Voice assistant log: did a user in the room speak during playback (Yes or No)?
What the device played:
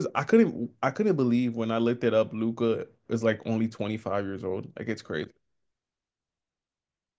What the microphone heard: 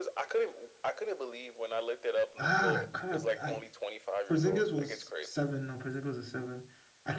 Yes